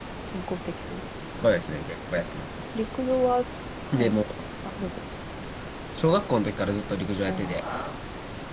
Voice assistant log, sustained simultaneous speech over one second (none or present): none